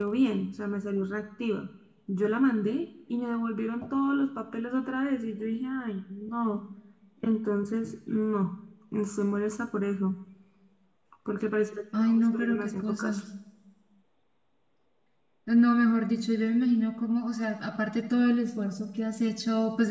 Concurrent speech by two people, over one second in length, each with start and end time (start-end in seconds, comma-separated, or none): 12.0-13.2